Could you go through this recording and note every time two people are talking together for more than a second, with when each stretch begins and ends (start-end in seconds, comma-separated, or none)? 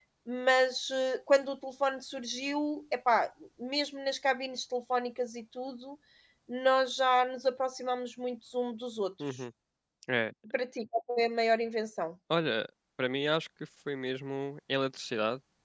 none